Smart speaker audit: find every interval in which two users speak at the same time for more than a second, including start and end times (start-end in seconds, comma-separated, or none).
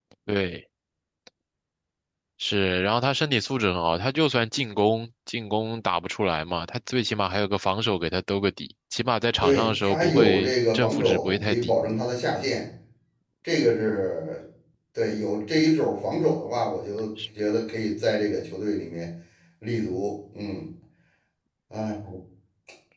9.4-11.7